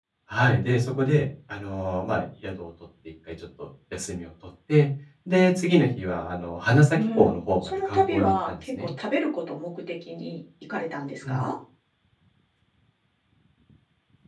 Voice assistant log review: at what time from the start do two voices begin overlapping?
6.9 s

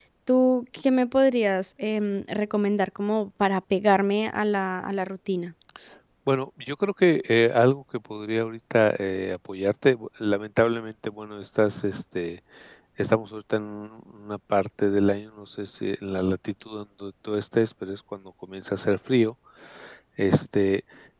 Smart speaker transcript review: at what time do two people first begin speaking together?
none

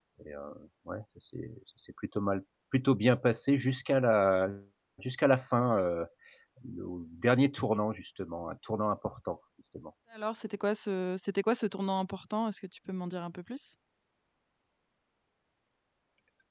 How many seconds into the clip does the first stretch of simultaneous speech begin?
none

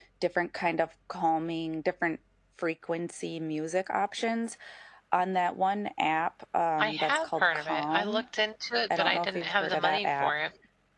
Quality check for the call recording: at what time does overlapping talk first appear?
6.8 s

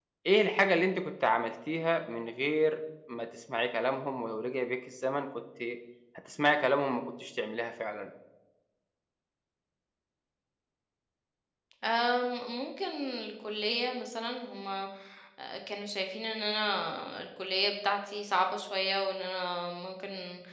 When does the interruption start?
none

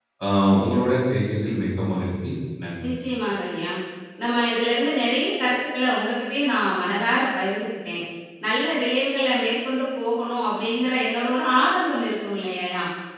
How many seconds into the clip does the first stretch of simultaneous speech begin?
none

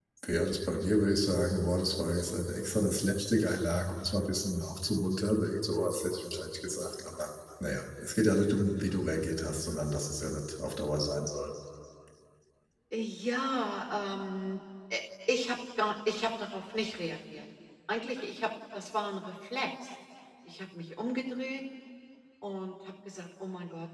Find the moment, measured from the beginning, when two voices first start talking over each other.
none

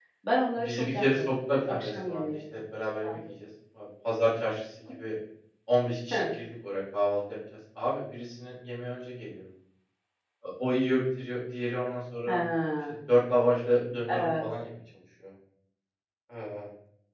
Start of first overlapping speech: 0.6 s

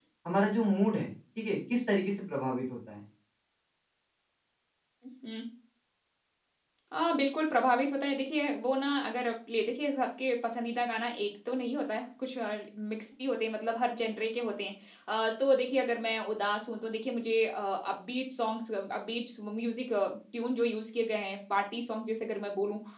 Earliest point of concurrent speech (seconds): none

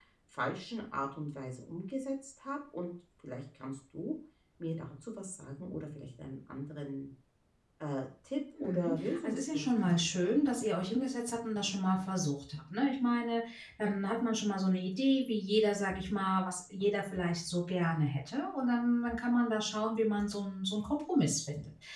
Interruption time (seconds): 8.6 s

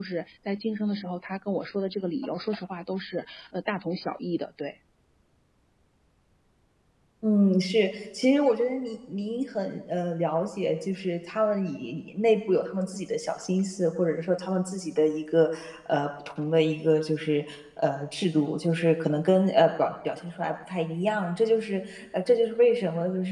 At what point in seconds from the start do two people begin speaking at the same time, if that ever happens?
none

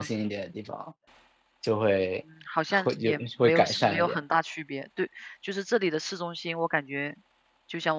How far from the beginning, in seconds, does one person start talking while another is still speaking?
2.7 s

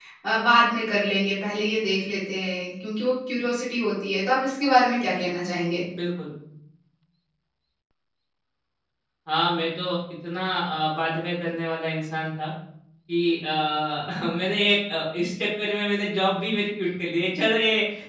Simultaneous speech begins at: none

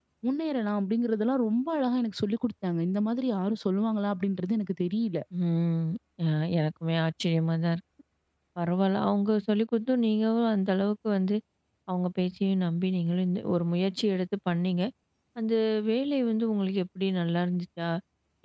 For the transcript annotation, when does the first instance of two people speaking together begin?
none

